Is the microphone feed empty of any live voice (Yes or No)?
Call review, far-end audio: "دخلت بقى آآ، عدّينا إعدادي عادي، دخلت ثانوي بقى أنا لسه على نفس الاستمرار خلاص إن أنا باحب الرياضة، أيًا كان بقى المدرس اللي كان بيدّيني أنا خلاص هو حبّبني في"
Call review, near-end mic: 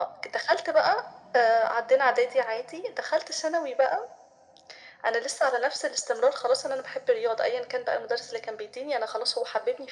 Yes